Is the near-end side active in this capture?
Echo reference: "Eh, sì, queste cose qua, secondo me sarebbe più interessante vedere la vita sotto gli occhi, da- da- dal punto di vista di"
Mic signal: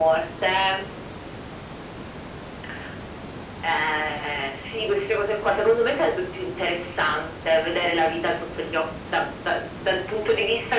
No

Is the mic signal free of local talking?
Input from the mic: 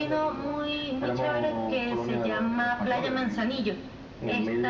Yes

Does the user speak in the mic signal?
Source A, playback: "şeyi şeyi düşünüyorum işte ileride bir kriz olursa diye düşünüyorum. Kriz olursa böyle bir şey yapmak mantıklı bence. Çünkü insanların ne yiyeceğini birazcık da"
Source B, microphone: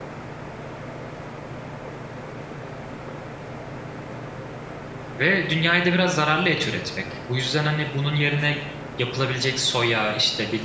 Yes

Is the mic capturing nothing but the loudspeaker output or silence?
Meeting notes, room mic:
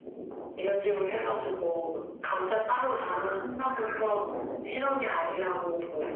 Yes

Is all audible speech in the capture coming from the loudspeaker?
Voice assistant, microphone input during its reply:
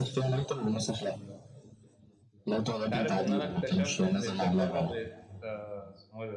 No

